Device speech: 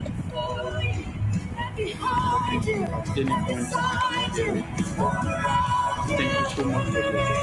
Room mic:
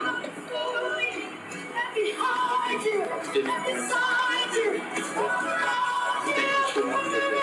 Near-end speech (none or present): none